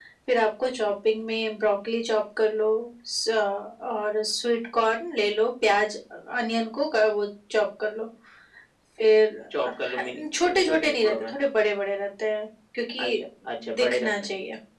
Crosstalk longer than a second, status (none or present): present